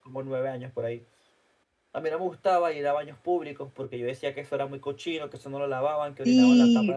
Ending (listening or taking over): taking over